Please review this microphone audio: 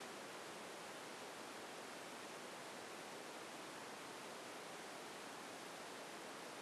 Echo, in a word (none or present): none